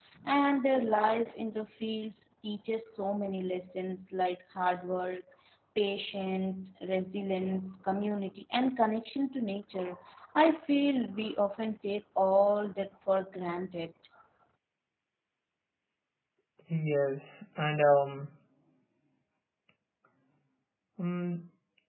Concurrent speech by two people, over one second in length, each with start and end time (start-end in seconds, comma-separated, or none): none